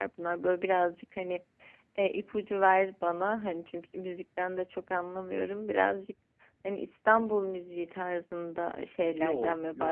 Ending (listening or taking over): taking over